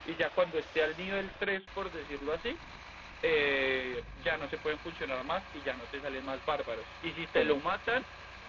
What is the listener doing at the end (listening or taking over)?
listening